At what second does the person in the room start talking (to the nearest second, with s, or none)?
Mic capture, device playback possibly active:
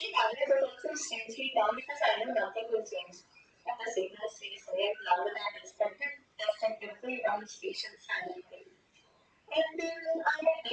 none